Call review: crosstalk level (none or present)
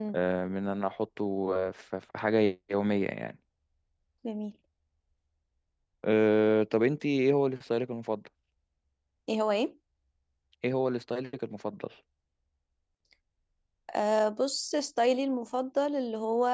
none